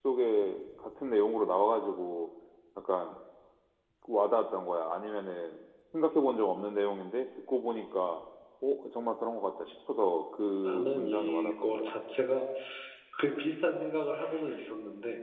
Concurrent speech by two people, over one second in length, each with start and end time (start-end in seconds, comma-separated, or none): 10.6-11.9